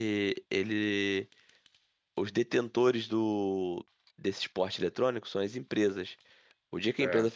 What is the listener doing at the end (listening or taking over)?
listening